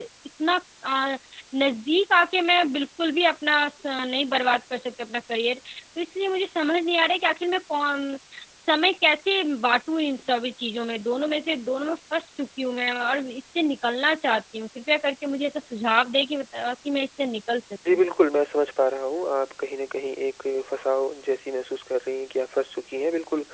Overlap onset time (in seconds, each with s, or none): none